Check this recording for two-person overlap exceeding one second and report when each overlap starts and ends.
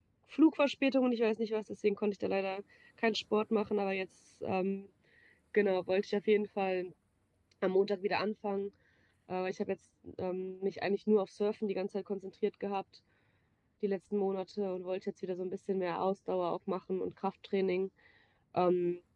none

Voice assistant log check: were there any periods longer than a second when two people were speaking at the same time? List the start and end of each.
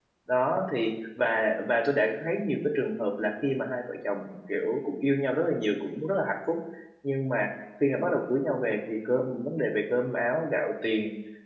none

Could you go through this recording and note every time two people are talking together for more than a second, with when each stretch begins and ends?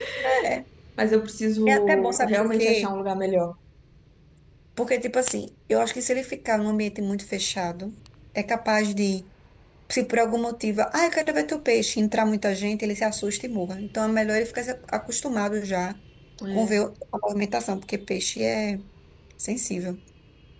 1.7-2.9

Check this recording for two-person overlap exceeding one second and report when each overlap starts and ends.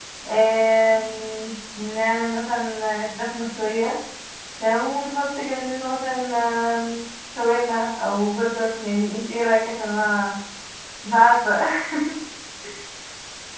none

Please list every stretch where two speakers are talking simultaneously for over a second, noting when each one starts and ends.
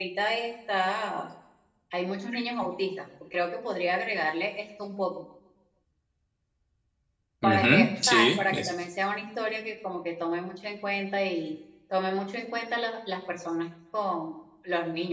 7.4-8.7

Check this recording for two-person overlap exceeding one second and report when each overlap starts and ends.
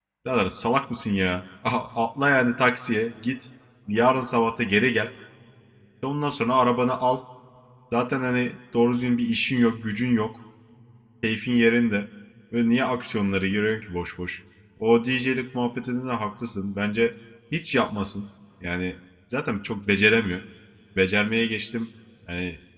none

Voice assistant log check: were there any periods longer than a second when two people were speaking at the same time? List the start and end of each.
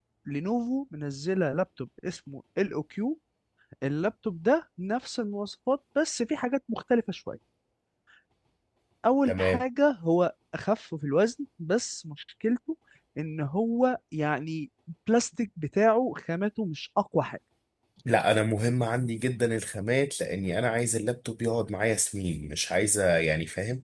none

